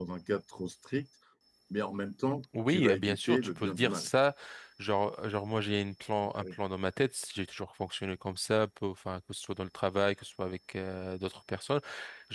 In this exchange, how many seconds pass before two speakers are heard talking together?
2.5 s

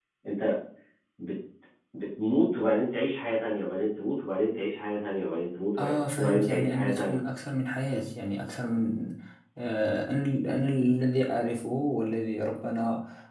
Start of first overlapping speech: 5.8 s

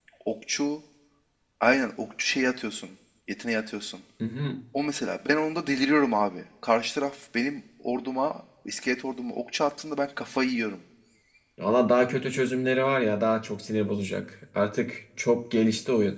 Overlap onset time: none

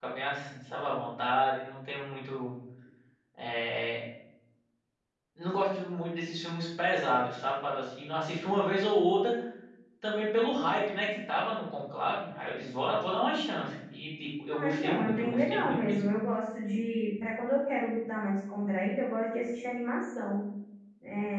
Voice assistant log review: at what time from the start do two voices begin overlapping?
14.5 s

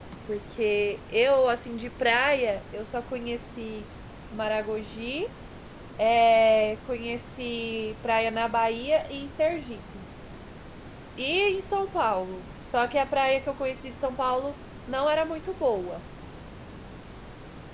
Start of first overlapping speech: none

